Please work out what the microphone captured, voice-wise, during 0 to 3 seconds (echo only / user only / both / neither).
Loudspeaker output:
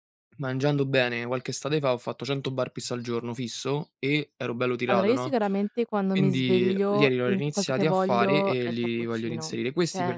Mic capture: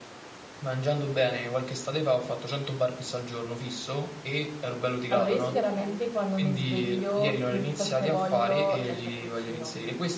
echo only